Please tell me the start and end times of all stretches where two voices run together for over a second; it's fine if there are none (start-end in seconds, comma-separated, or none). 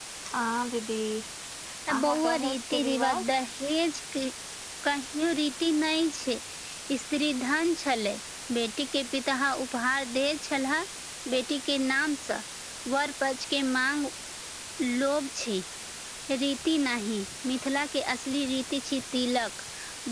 2.0-3.4